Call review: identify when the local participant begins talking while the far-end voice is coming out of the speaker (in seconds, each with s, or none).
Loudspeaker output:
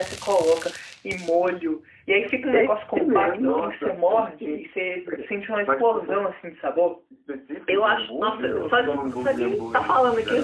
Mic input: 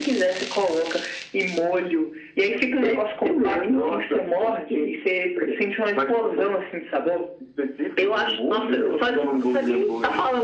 none